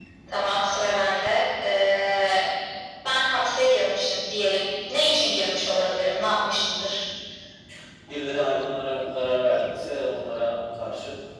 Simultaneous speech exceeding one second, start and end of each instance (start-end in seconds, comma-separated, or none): none